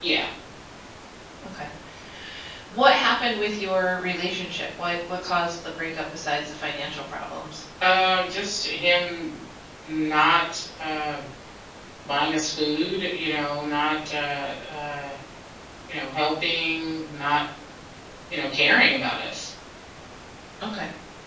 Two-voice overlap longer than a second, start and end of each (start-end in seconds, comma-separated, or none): none